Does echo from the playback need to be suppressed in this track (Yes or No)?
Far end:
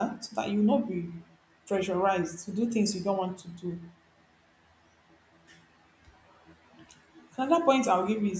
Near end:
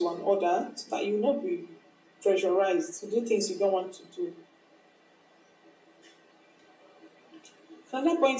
Yes